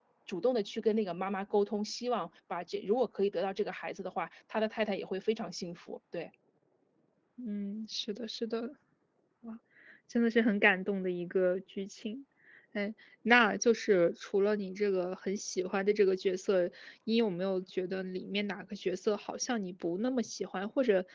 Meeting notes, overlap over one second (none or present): none